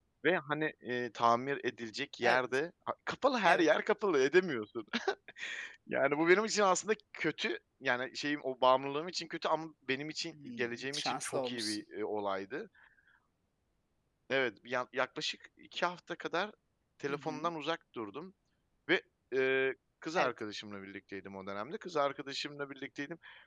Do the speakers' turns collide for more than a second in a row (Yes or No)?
Yes